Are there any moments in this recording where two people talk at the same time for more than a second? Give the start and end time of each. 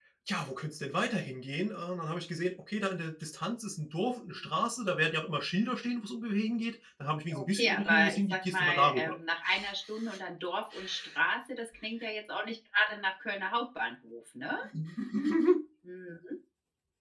7.3-9.1

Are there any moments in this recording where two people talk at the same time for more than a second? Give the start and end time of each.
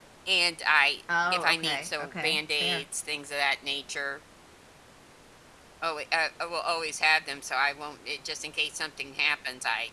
1.3-2.8

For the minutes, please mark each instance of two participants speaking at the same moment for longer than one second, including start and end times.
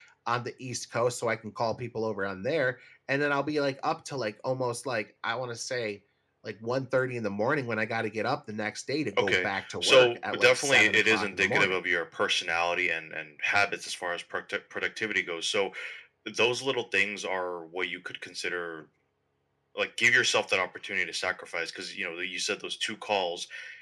9.2-11.8

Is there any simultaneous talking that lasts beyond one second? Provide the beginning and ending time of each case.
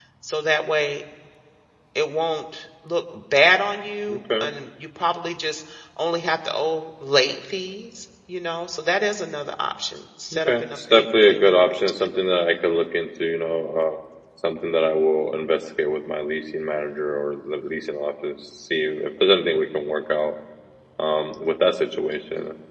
10.3-11.8

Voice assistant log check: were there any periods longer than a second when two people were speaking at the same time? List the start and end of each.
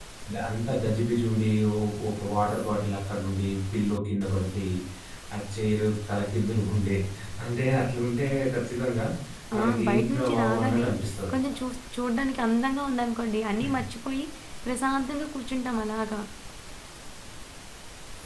9.6-10.8

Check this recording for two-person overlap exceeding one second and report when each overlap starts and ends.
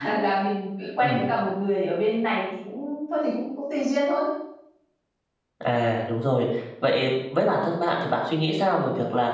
none

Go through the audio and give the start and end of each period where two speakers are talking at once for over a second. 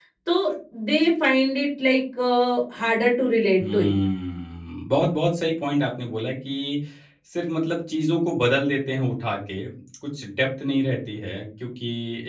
none

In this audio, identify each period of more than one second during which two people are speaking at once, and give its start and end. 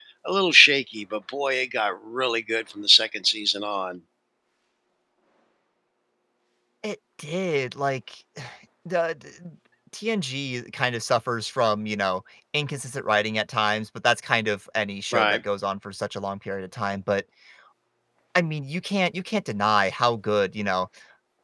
none

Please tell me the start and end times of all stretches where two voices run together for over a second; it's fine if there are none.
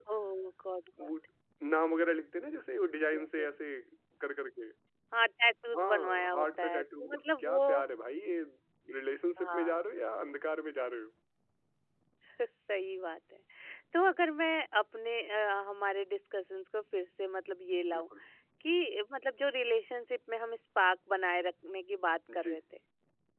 5.7-7.6

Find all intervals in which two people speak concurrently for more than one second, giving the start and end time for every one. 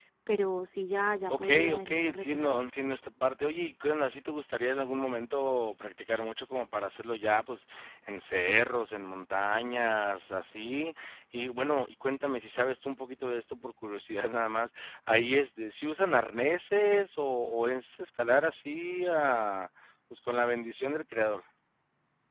1.3-2.6

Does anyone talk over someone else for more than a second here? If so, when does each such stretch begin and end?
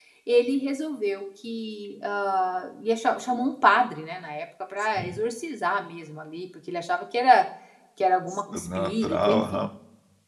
8.3-9.6

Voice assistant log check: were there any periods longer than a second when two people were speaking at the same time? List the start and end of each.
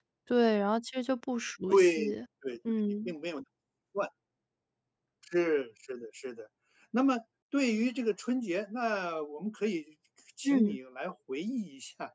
none

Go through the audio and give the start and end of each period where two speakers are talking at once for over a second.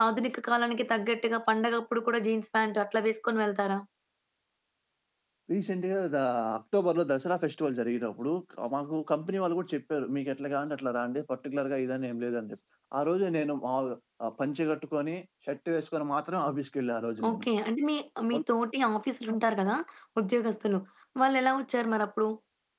none

